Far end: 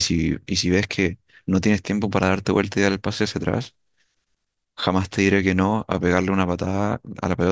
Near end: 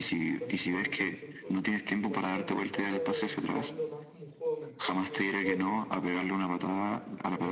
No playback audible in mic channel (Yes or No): No